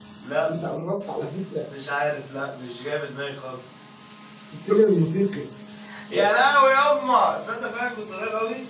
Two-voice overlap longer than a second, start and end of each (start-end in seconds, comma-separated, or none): none